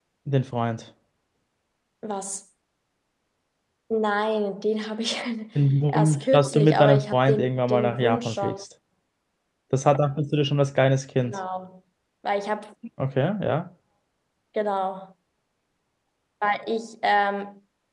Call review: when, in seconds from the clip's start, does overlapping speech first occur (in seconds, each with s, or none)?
5.9 s